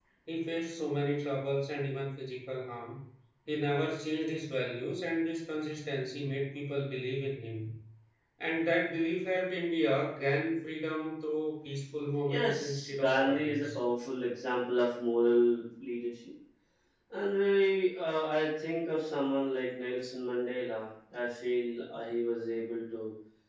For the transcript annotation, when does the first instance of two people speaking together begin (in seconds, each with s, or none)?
12.2 s